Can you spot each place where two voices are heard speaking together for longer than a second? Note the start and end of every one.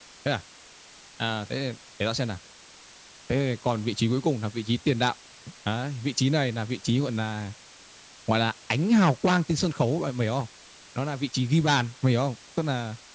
none

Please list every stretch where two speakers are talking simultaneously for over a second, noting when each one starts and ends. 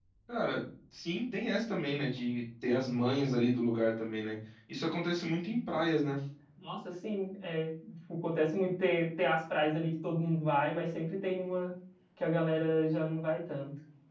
none

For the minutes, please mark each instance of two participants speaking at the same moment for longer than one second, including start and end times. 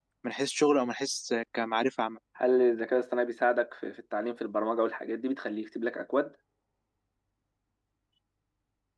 none

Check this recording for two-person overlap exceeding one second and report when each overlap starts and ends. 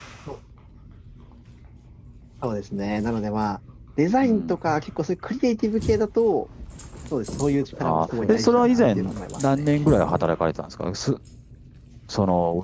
7.8-9.7

